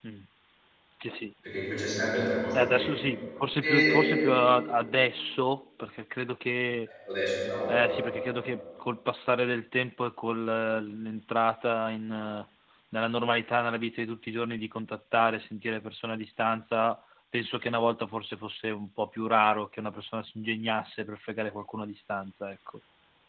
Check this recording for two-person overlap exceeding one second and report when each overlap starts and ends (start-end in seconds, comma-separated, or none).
none